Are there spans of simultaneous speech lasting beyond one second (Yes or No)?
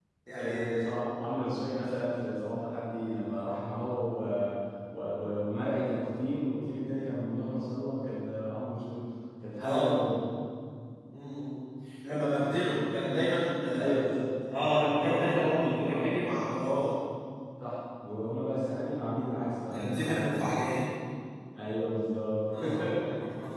Yes